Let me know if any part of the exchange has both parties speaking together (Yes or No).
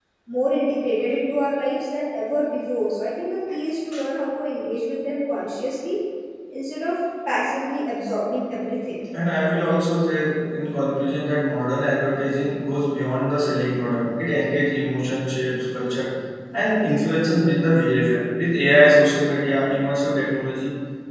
No